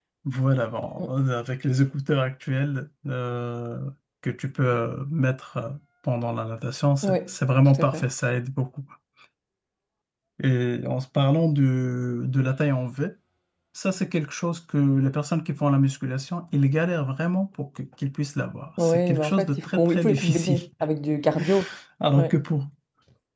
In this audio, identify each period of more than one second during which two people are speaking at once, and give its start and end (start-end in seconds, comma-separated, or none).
18.8-20.6